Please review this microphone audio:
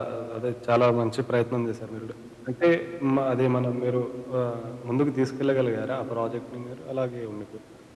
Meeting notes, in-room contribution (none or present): none